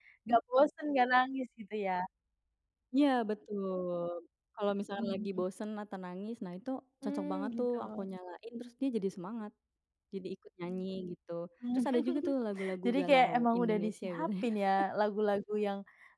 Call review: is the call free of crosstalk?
No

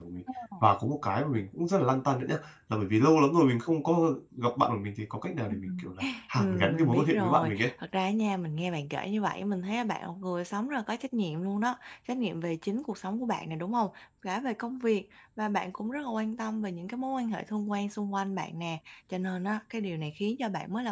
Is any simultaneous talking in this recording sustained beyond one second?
Yes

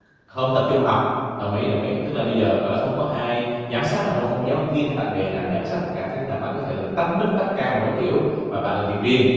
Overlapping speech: No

